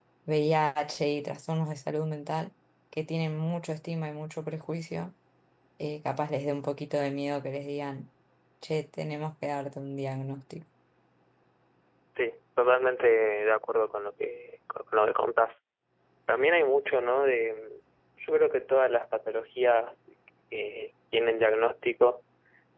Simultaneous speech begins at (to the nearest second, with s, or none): none